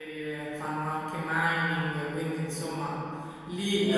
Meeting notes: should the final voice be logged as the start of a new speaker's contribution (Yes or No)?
No